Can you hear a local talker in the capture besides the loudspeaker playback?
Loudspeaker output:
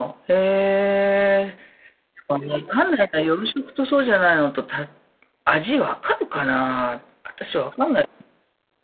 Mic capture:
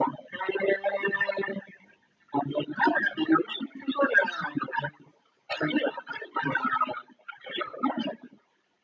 No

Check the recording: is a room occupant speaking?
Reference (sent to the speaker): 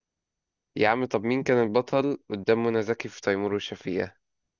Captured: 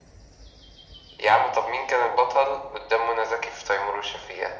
No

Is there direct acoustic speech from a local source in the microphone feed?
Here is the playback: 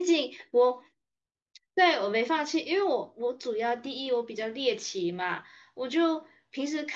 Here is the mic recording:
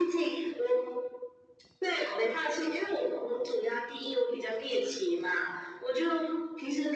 No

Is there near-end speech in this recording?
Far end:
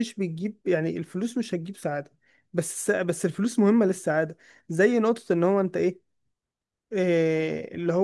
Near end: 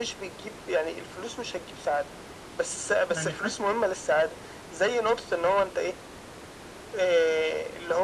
Yes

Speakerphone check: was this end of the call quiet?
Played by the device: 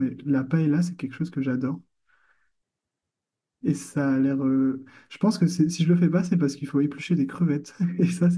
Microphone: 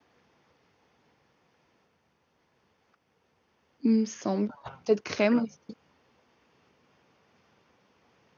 No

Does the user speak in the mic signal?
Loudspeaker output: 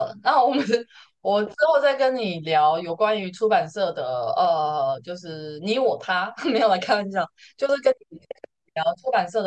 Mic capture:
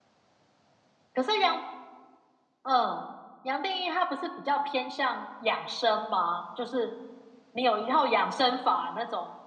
Yes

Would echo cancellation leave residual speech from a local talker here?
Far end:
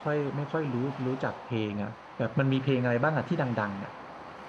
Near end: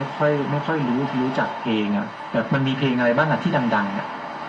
No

